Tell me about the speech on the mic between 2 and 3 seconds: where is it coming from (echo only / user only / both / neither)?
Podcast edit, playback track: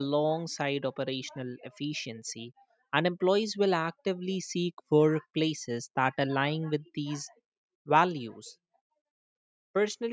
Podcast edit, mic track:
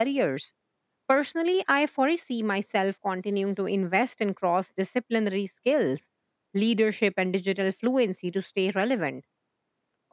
user only